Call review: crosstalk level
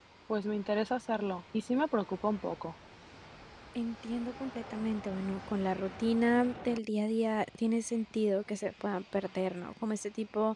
none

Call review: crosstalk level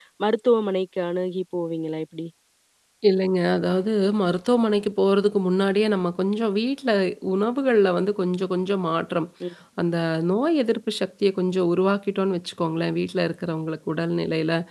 none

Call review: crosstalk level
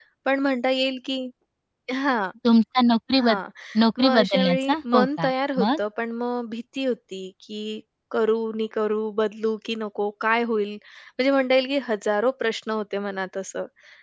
present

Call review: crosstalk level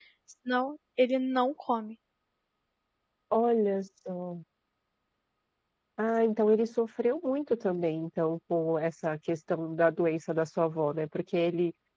none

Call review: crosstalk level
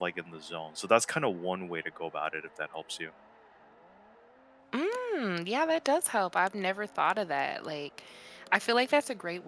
none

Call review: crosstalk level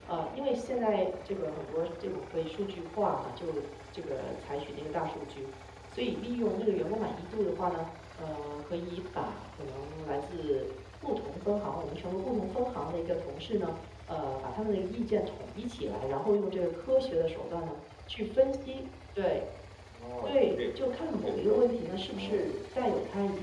present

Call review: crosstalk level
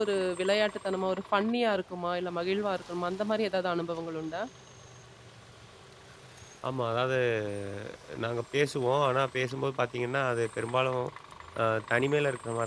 none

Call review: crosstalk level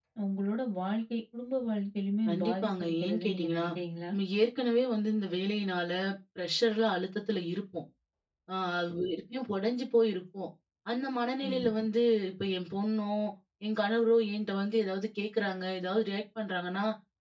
present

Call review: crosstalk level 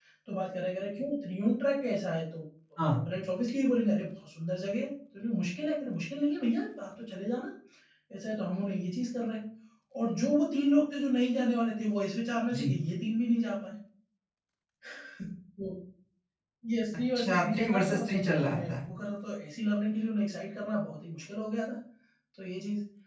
present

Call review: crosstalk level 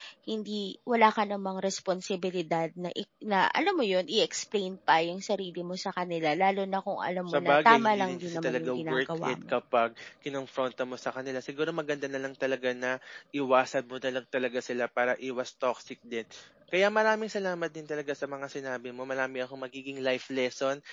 present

